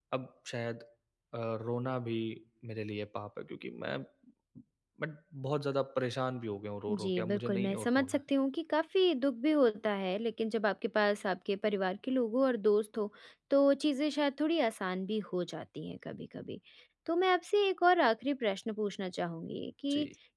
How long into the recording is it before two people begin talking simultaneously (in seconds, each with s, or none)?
6.9 s